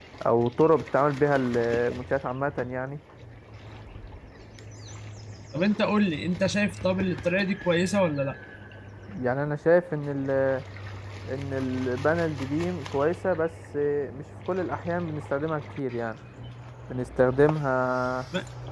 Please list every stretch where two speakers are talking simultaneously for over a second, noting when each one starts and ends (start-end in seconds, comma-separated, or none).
none